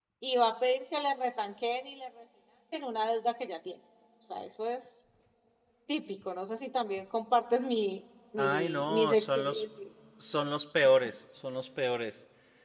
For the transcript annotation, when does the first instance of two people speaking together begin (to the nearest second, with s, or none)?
8 s